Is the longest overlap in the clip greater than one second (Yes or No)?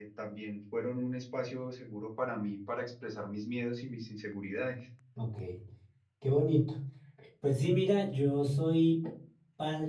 No